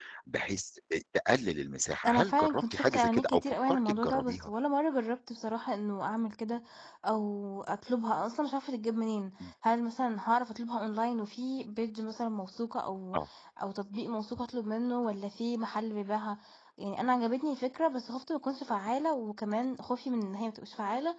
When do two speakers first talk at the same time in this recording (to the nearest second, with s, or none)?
2 s